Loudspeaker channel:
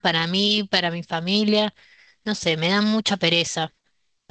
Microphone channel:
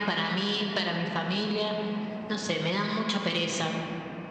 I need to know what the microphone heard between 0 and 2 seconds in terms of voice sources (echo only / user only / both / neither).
echo only